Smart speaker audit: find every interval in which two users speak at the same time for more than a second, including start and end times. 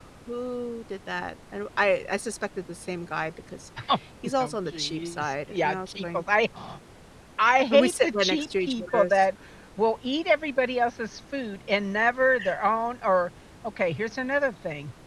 4.4-6.2, 7.7-9.1

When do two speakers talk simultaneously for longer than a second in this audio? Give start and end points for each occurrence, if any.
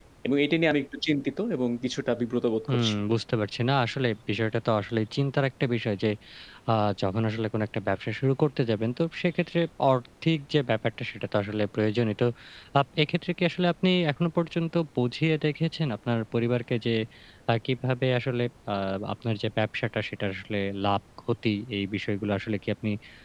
none

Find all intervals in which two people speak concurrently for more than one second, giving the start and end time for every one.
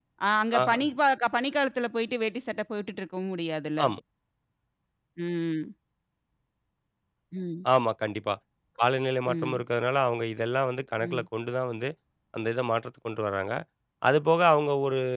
none

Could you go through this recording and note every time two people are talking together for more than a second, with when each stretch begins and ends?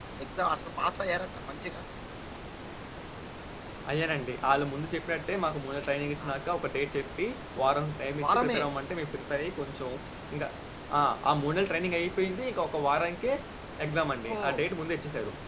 none

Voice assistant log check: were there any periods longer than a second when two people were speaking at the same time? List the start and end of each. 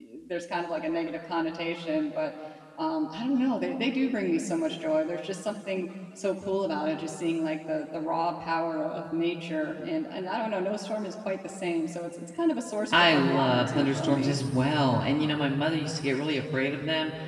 12.9-14.3

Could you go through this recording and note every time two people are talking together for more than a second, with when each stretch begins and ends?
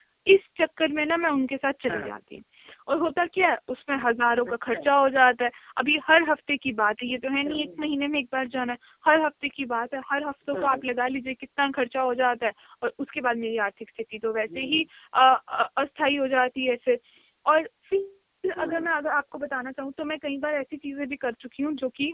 none

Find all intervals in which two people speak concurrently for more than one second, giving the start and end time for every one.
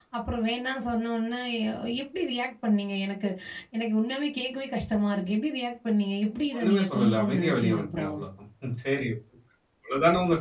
6.5-8.2

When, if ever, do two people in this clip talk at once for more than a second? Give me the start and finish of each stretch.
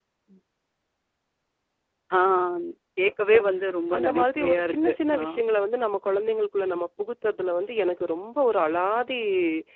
4.0-5.2

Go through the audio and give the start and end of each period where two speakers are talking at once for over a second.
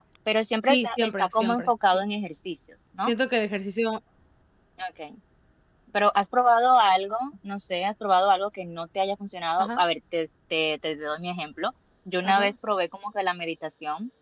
0.6-2.0

